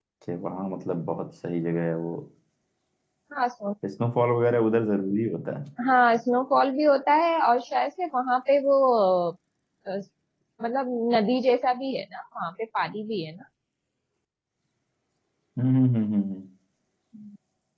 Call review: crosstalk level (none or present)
none